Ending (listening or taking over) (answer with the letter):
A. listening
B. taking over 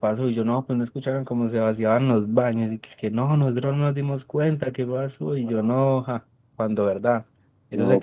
A